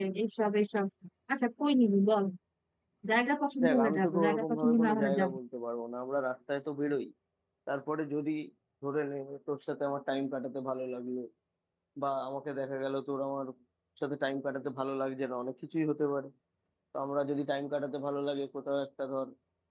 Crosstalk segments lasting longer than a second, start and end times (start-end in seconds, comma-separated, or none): 3.6-5.4